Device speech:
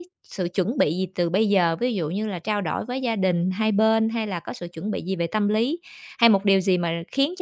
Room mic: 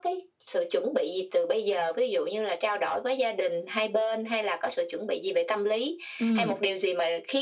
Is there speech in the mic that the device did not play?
Yes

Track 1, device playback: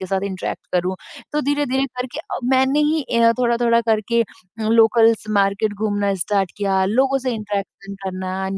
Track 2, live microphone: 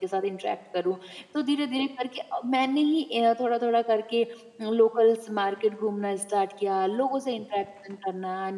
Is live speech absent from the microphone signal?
Yes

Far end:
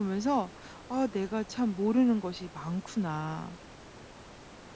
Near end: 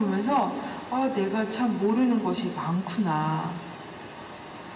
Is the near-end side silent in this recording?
Yes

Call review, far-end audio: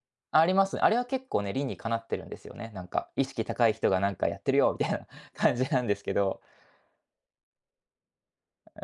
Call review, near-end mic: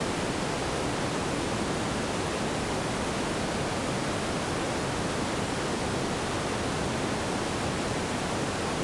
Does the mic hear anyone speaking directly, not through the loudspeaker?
No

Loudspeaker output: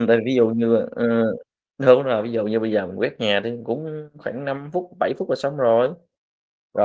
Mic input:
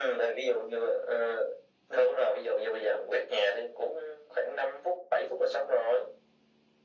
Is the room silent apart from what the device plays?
Yes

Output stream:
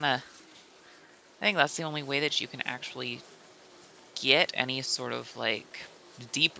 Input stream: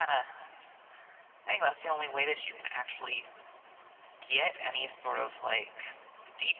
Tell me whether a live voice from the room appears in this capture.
No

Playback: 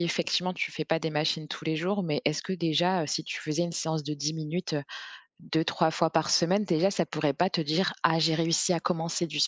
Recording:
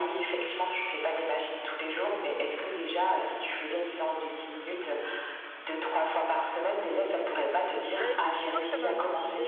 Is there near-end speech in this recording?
Yes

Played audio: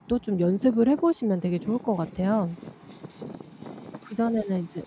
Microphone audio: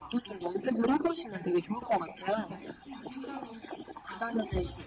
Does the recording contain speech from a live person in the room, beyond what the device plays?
Yes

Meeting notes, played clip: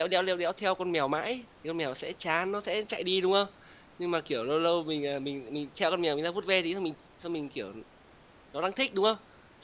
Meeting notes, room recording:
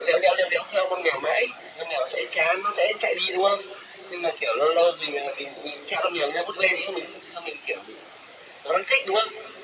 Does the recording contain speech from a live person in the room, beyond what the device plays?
No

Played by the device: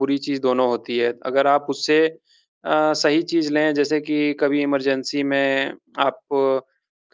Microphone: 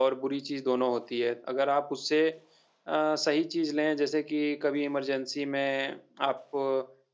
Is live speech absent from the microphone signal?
Yes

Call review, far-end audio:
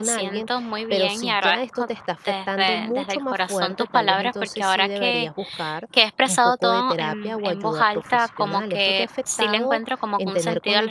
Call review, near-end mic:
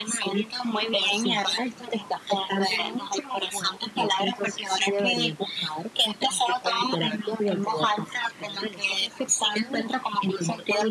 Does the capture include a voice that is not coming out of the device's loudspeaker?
No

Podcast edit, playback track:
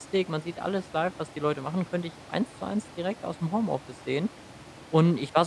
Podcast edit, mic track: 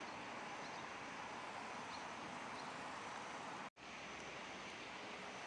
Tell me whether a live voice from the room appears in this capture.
No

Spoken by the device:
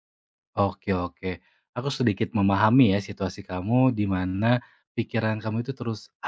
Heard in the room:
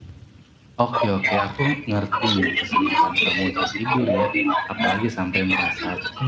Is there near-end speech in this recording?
Yes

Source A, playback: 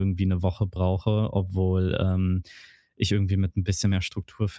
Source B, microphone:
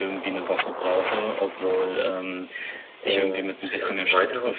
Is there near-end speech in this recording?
Yes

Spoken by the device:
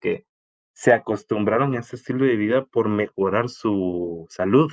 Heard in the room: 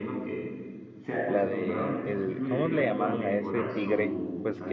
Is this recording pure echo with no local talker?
No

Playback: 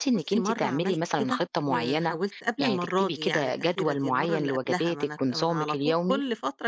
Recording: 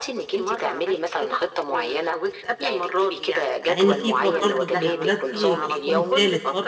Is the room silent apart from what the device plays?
No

